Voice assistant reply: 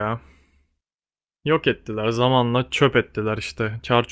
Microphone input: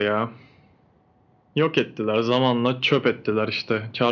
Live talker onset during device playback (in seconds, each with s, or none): none